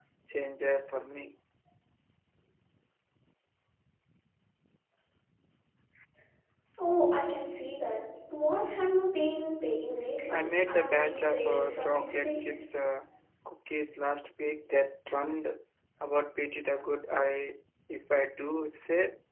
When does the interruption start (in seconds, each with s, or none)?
10.3 s